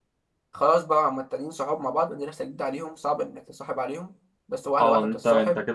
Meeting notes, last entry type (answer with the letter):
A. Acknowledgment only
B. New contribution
B